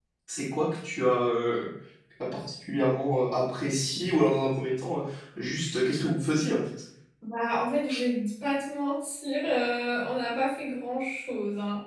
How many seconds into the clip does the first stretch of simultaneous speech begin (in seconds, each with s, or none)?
none